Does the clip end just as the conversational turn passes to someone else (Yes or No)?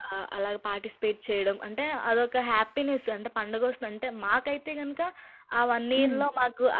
No